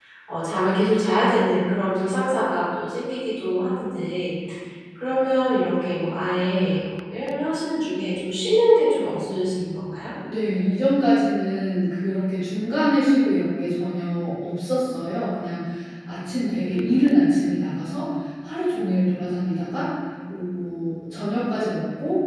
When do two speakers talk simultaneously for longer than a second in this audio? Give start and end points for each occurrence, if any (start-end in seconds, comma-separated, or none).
none